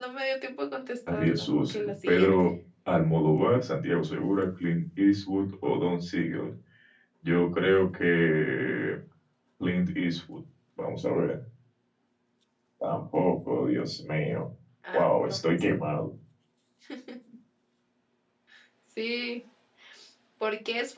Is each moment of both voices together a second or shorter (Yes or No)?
No